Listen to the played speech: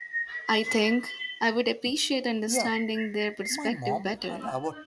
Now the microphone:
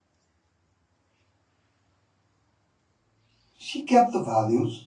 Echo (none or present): none